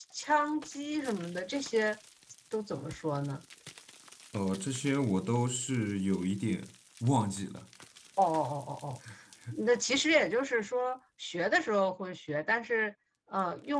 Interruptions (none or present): none